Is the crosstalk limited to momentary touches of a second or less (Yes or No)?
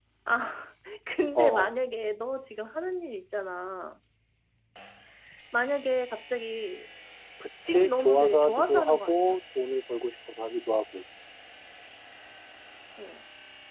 No